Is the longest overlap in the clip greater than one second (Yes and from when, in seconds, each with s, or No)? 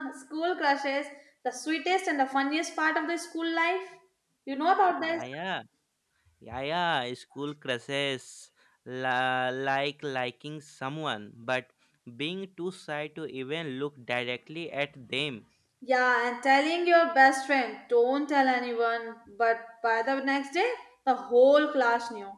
No